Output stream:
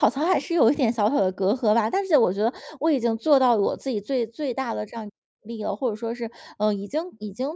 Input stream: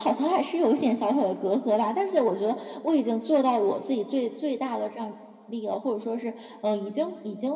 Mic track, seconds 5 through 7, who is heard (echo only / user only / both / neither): echo only